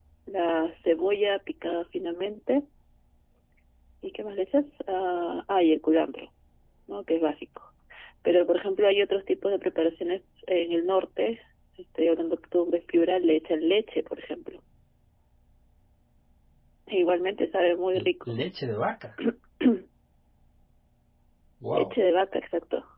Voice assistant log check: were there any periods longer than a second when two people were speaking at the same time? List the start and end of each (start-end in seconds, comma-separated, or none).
none